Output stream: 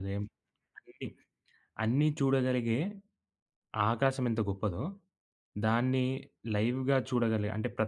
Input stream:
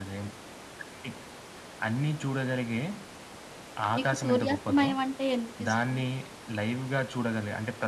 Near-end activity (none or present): present